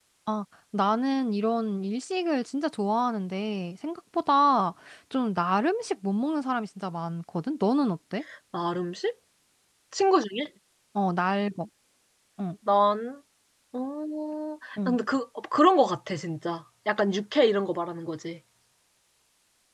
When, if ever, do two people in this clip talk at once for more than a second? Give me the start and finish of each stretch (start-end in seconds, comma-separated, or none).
none